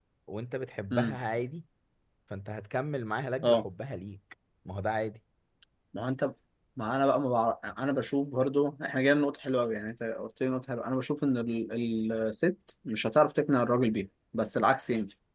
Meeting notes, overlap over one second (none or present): none